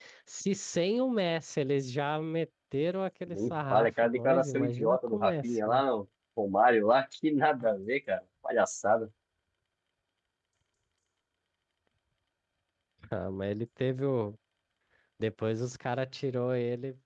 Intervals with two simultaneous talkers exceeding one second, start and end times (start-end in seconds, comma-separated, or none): 3.3-5.8